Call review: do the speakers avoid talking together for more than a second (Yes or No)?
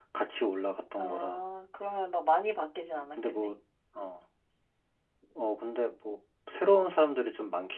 Yes